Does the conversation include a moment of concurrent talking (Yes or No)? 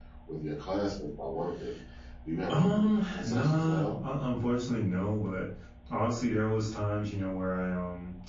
Yes